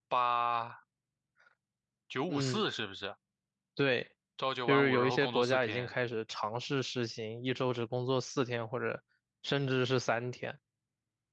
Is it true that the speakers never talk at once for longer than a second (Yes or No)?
No